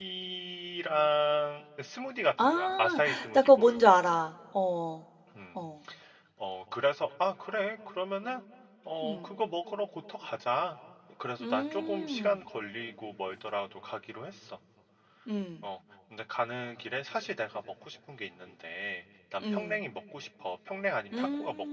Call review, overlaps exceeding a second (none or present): present